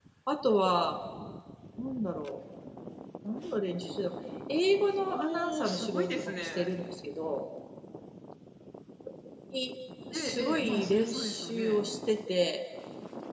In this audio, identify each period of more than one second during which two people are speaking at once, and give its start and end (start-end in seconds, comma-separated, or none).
5.1-6.7, 10.1-11.8